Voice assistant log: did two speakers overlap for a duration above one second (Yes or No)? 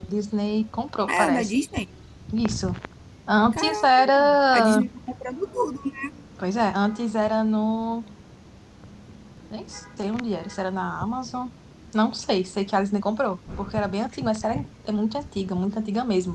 Yes